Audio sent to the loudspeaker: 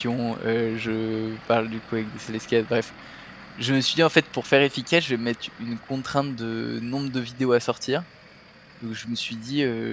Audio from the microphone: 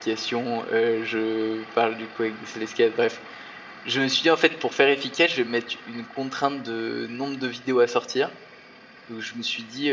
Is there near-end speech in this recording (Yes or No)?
No